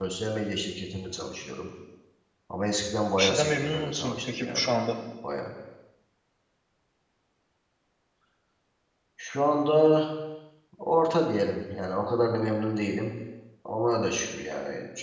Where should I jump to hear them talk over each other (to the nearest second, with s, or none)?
3 s